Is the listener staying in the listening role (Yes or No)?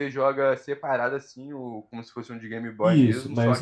No